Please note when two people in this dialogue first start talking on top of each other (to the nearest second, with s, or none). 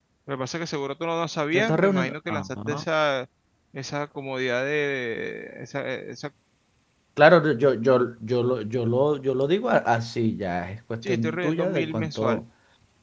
2 s